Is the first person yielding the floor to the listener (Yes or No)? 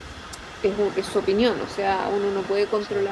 No